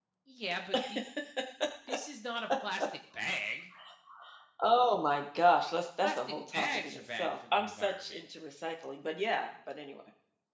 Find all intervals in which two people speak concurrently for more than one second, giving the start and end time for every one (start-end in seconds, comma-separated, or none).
6.0-8.2